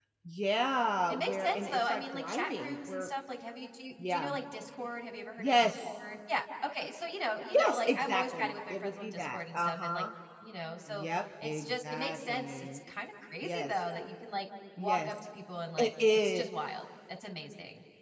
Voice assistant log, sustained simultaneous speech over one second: present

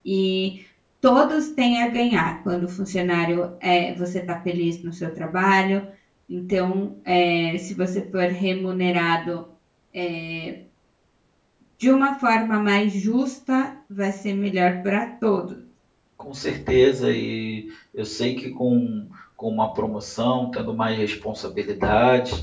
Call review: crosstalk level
none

